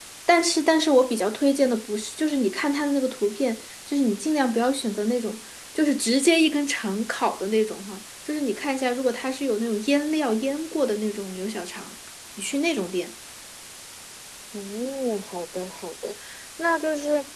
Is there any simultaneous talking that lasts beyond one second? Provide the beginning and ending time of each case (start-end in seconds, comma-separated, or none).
none